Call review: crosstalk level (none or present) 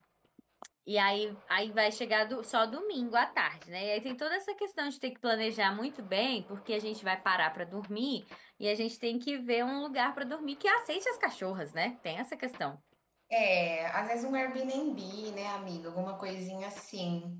none